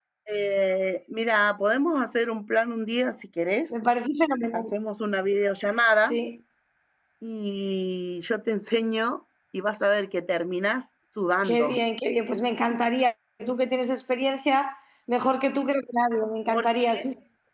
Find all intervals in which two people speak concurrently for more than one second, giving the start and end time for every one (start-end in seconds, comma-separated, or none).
none